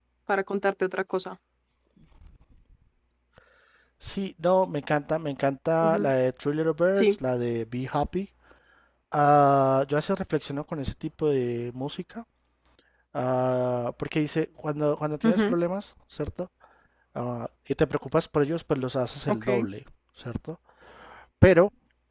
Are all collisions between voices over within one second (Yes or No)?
Yes